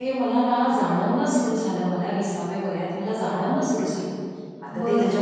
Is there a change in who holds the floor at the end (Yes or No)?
No